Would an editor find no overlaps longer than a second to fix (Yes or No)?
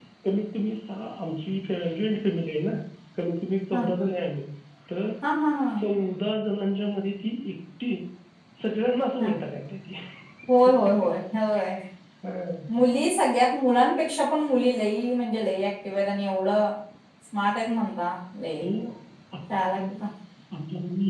Yes